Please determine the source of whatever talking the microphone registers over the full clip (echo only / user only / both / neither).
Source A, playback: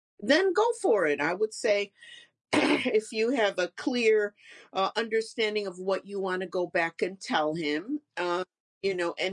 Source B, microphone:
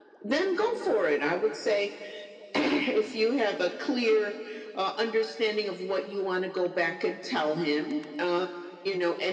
echo only